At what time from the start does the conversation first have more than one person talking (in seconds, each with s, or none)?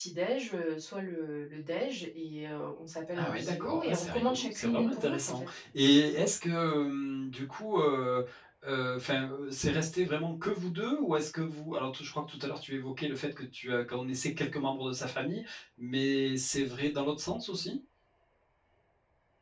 3.1 s